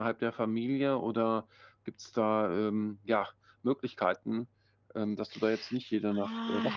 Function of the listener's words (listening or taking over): taking over